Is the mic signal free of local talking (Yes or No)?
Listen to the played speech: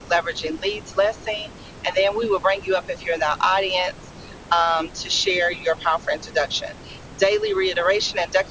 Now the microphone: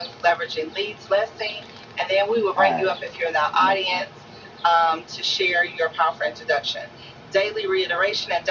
No